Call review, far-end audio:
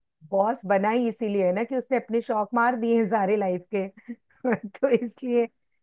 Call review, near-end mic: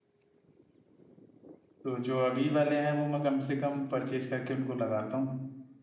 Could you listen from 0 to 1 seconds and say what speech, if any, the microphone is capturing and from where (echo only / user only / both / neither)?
neither